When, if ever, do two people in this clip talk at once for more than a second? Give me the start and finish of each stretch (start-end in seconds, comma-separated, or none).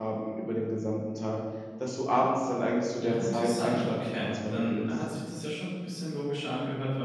3.0-4.9